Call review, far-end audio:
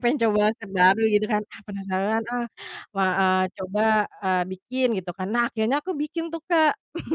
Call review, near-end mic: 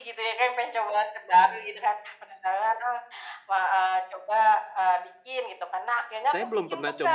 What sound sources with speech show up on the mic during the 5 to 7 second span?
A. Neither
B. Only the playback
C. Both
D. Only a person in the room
C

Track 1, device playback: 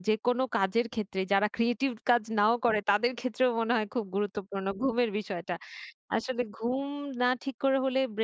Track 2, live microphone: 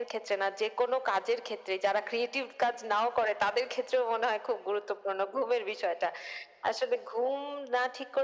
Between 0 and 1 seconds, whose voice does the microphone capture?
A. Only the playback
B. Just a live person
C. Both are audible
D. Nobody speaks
A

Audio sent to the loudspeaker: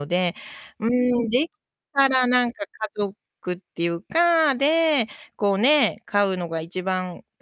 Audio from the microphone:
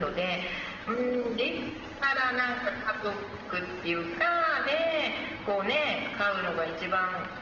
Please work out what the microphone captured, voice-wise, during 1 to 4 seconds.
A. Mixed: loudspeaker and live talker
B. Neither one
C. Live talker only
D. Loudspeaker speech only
D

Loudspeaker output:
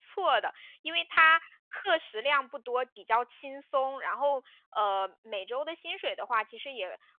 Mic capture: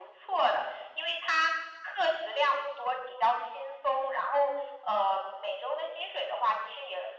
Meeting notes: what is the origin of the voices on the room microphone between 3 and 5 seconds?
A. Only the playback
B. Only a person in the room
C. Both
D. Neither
A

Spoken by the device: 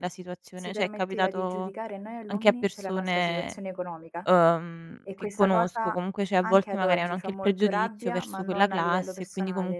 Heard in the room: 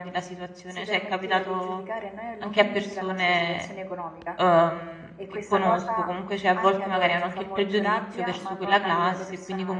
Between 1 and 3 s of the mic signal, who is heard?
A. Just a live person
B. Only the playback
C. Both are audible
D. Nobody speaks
B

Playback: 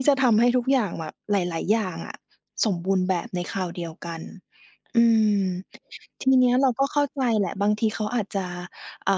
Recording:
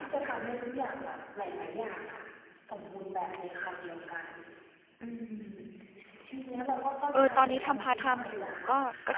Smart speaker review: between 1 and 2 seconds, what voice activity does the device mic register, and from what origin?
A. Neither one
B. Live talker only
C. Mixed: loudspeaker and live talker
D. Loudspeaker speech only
D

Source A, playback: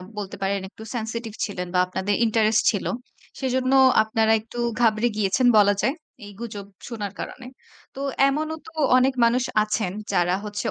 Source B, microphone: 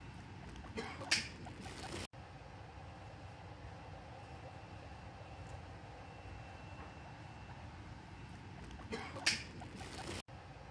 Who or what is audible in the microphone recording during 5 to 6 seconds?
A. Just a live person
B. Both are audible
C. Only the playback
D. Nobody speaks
D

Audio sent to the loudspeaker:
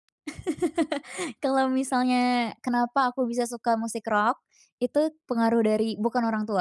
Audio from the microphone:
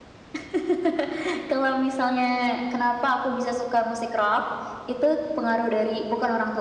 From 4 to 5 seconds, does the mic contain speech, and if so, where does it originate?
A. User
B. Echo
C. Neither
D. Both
B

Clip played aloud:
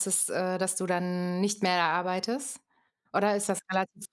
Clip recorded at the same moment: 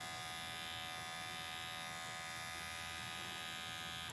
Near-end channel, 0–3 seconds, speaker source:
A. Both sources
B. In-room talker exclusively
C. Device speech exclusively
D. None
D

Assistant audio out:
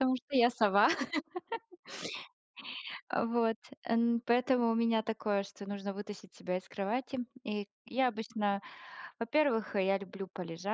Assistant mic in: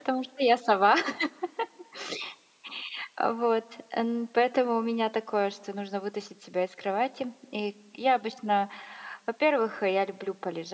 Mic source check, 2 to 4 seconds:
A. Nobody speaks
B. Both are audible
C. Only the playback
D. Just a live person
C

